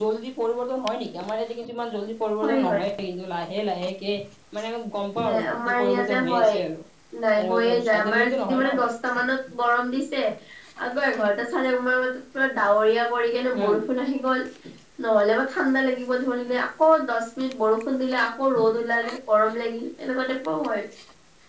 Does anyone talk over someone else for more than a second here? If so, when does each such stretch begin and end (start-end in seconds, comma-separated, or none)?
5.2-6.5, 7.4-8.7